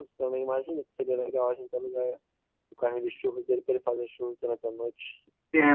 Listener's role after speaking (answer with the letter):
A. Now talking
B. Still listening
A